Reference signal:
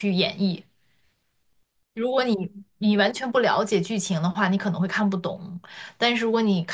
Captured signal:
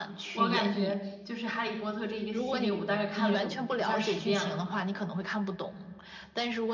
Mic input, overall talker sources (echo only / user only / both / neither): both